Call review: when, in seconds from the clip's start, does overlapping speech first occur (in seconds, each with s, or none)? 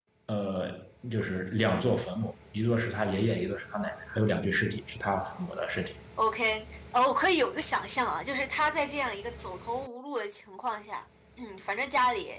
none